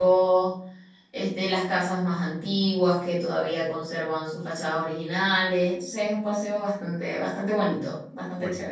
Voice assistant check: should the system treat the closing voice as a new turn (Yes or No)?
Yes